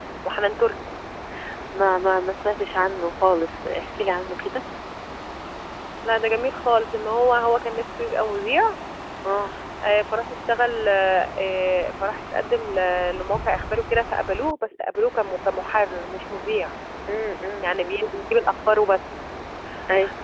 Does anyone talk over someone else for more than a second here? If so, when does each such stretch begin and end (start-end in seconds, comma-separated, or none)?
none